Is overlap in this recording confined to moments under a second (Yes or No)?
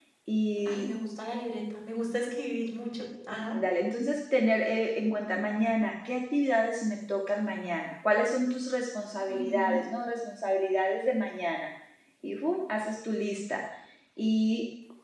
Yes